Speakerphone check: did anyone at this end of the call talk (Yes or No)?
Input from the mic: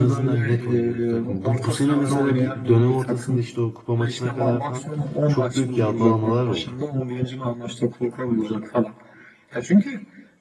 Yes